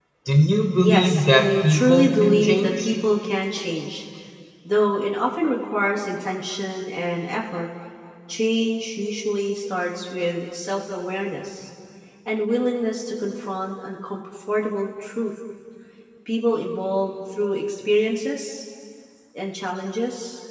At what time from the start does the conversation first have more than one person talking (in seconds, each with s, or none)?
0.8 s